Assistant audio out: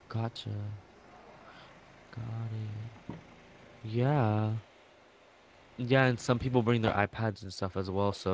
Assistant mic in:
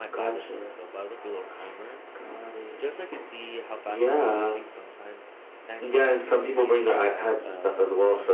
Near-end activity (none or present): present